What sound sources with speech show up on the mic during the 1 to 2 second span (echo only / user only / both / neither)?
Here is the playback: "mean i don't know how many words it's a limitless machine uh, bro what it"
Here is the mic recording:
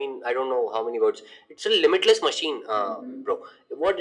echo only